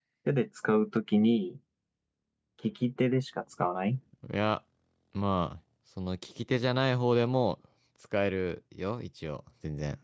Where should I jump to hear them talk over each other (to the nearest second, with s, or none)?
none